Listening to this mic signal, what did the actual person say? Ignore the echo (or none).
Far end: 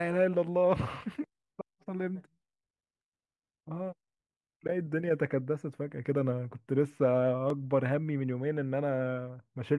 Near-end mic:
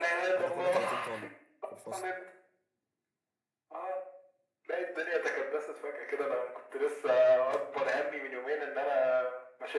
احنا كنا 30 طالب في الفصل